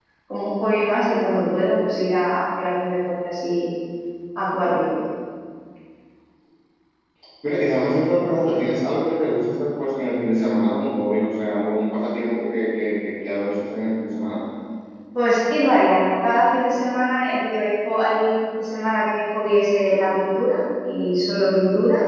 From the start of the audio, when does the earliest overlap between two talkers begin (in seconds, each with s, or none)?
none